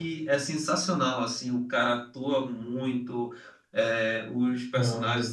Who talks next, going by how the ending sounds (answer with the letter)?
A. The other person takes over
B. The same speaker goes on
B